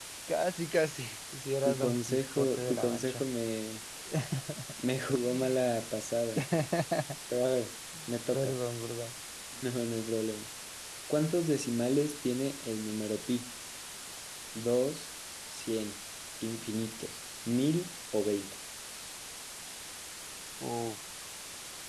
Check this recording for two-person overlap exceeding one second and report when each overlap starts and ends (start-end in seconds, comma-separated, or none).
1.6-3.2